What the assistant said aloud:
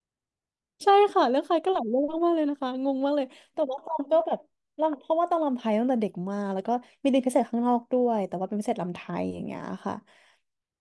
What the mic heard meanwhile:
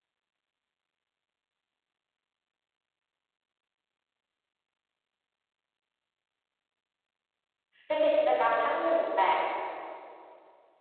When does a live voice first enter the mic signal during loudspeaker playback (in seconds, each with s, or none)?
7.9 s